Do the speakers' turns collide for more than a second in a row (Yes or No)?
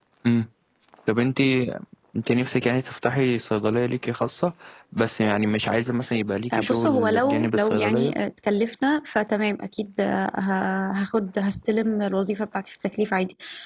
Yes